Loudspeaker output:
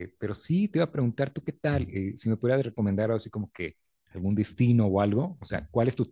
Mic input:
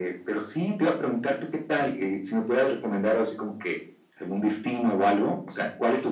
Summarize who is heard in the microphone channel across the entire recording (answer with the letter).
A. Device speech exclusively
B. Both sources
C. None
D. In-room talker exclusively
A